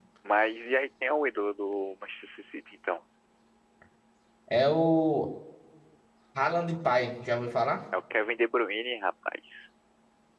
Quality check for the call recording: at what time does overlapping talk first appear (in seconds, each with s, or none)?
none